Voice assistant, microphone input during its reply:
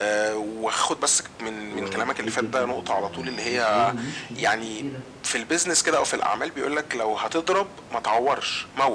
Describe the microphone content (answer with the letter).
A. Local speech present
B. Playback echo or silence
A